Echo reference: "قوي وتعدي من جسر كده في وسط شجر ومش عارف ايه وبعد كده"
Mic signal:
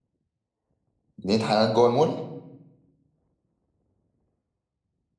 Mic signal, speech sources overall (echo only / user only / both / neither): user only